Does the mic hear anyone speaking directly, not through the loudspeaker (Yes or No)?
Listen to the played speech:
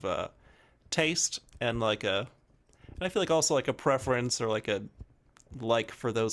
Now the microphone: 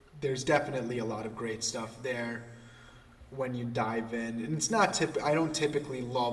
Yes